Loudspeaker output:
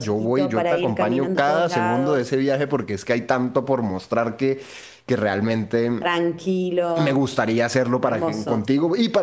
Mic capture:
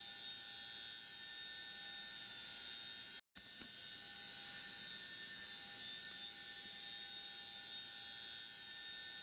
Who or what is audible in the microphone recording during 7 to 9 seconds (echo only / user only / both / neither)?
neither